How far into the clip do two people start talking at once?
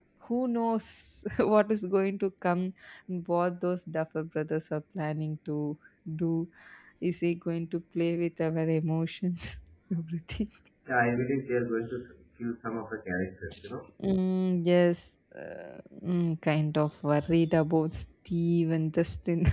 none

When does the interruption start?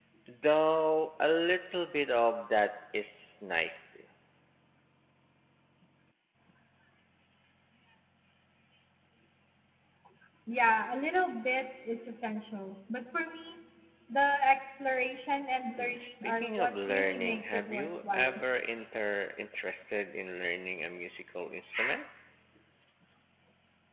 15.8 s

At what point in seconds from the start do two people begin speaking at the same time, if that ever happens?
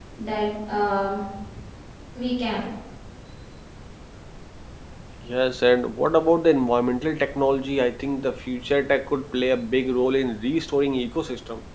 none

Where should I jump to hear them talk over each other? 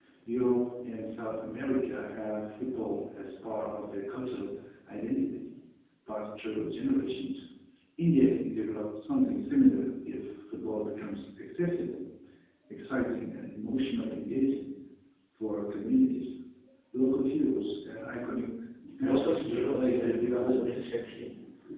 19.0 s

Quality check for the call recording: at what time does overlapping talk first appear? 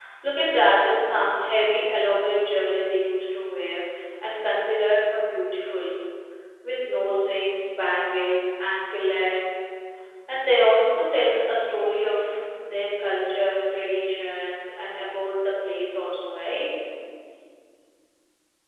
none

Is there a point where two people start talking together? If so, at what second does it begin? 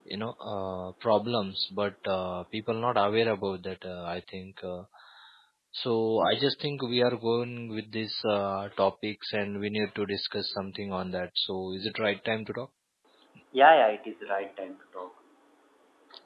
none

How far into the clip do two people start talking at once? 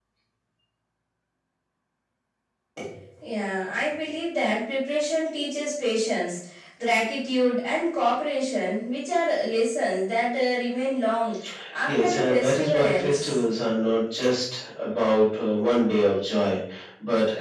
11.8 s

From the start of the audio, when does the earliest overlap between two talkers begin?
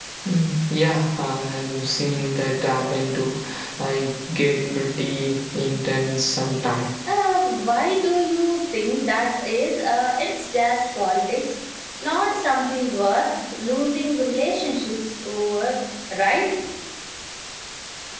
none

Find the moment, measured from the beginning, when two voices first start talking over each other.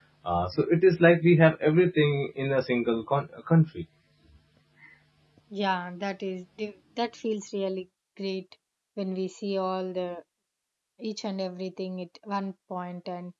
none

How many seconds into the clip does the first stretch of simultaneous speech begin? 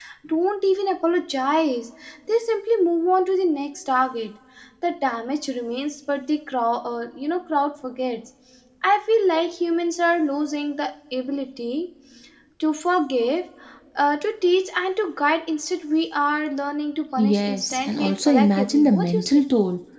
17.2 s

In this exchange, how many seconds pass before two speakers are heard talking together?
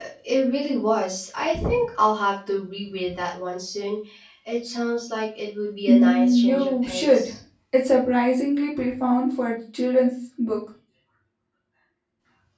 5.9 s

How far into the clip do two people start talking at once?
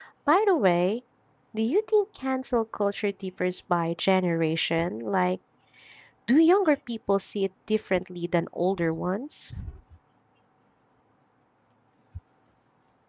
none

